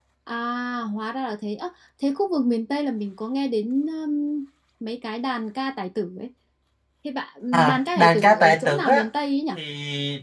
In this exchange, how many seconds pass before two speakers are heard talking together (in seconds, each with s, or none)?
7.5 s